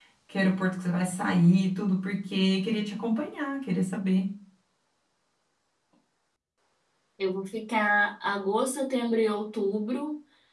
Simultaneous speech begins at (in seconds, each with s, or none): none